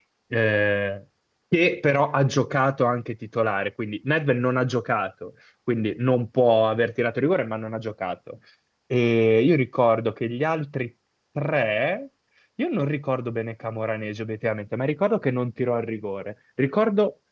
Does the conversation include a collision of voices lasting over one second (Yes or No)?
No